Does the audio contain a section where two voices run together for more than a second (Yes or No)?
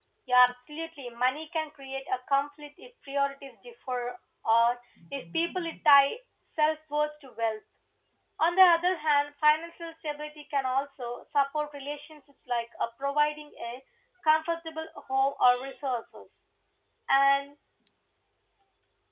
No